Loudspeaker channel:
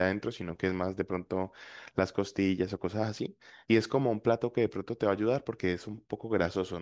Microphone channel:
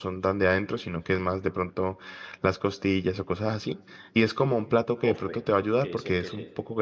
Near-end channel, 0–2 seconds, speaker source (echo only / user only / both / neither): echo only